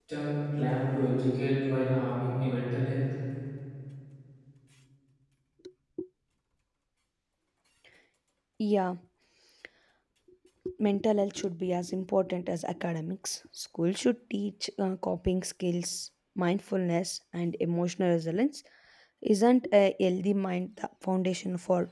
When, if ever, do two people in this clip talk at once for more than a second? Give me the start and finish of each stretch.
none

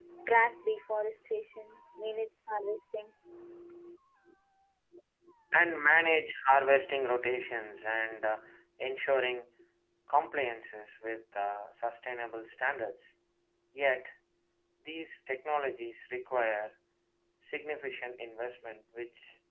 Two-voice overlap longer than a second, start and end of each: none

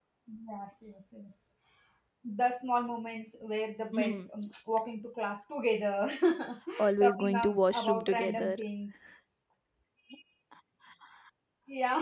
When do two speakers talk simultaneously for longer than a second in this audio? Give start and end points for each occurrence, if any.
7.0-8.6

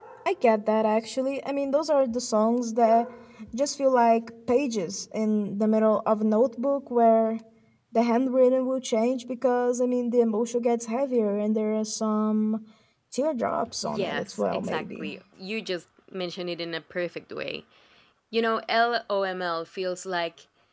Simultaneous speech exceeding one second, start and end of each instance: 13.8-15.1

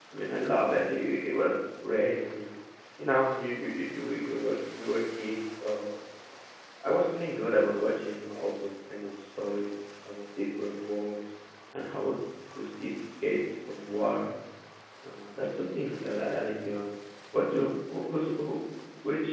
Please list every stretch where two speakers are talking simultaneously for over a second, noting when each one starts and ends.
none

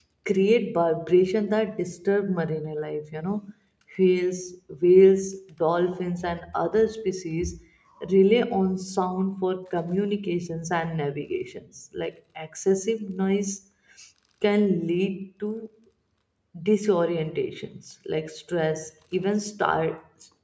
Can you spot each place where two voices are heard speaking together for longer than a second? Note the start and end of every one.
none

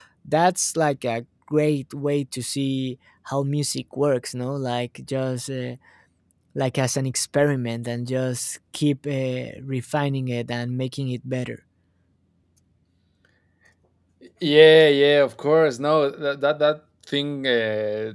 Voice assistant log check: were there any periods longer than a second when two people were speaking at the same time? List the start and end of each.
none

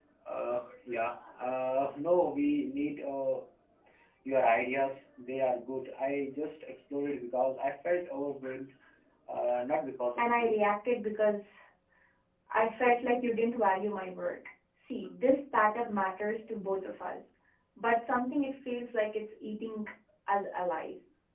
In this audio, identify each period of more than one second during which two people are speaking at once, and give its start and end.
none

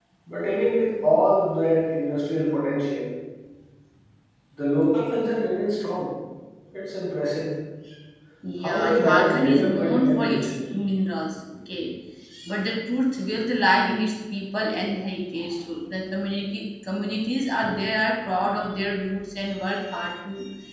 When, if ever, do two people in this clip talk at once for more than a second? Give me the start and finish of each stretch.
8.6-10.5

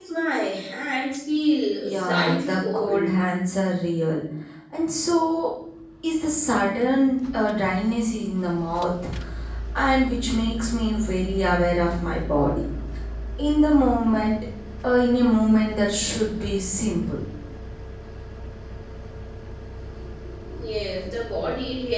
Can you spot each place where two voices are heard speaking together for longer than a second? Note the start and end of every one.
1.8-3.0

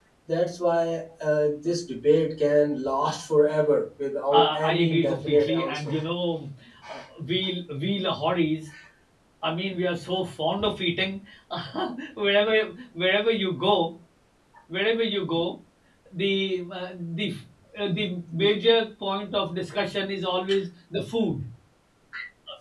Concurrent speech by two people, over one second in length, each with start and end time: 4.3-5.9

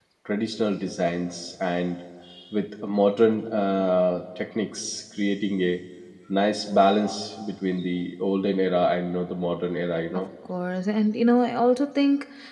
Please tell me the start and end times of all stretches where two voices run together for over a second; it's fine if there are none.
none

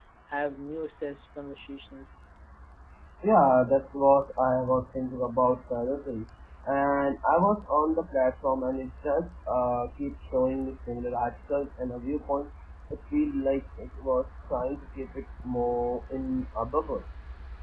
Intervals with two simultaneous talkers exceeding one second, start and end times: none

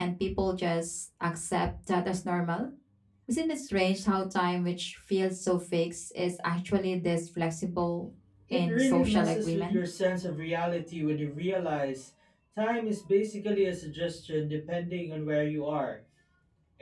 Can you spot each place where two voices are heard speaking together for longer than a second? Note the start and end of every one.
8.5-9.8

